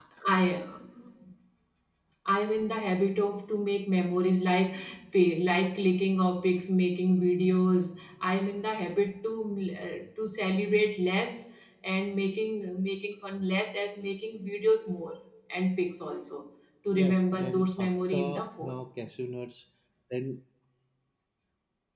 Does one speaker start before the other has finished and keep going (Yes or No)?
Yes